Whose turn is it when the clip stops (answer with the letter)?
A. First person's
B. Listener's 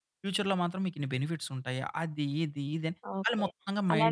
B